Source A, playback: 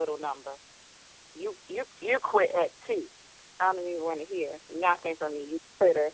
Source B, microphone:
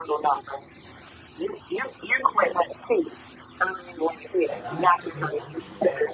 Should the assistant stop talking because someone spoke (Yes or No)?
Yes